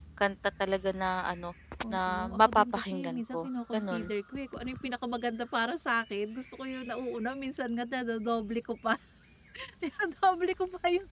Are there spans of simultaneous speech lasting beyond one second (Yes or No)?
Yes